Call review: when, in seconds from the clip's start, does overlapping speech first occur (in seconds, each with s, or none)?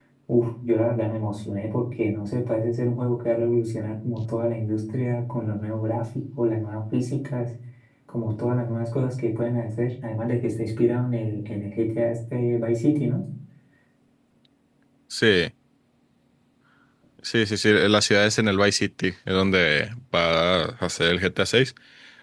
none